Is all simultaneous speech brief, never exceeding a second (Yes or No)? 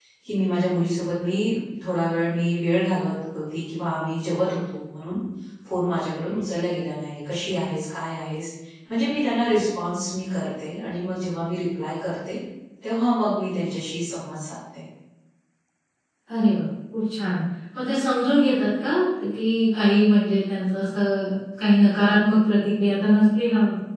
Yes